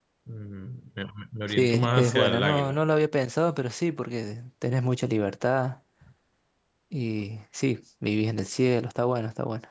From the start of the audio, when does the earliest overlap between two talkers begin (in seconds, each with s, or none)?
1.5 s